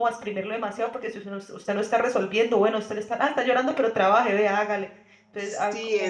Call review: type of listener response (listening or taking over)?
taking over